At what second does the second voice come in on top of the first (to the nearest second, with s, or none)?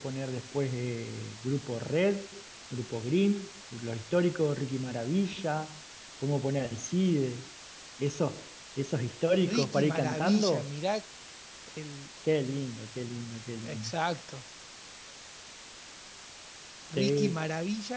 9 s